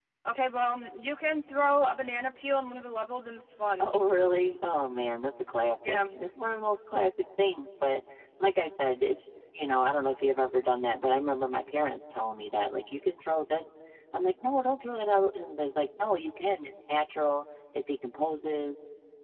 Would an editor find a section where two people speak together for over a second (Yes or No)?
No